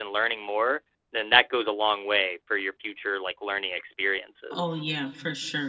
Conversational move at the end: taking over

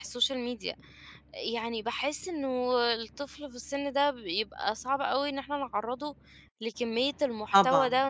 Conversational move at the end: listening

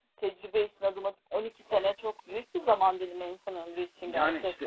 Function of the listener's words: taking over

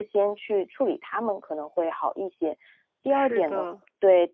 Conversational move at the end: listening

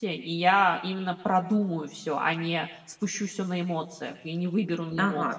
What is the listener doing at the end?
taking over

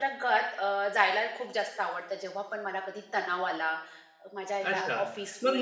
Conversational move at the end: taking over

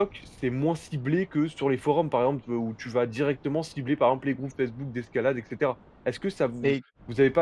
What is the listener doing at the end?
listening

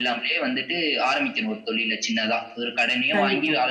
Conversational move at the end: listening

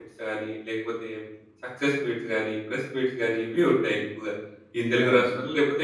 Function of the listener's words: listening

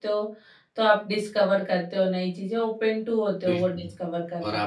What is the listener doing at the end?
taking over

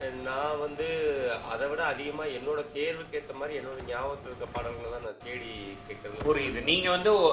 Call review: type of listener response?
taking over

